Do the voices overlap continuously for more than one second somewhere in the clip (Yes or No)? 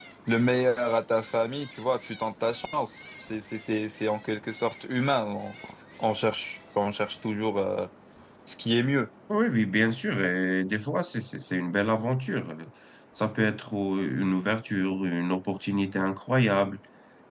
No